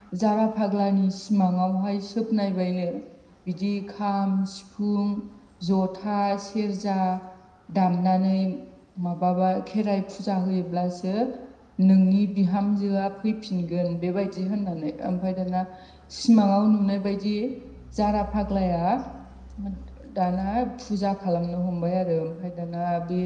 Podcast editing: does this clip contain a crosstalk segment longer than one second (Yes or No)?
No